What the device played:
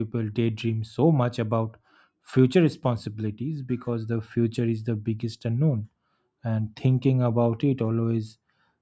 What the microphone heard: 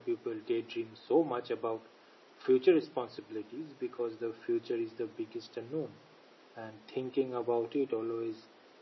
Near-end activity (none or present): none